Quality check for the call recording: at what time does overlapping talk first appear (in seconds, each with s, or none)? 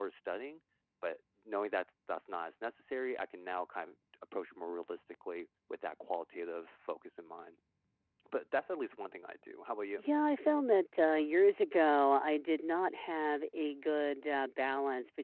none